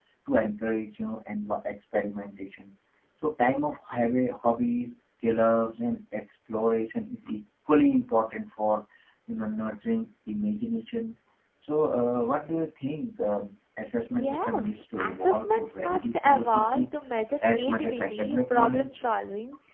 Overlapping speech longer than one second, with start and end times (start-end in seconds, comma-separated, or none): 14.1-16.8, 17.5-19.0